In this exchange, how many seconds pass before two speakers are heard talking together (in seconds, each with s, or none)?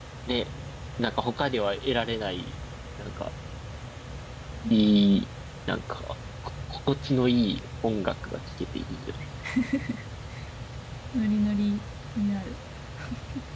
none